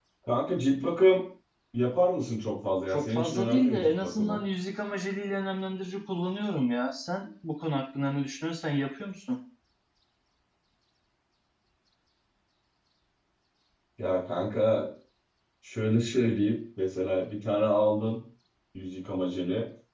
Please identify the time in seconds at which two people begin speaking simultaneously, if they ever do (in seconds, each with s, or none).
2.9 s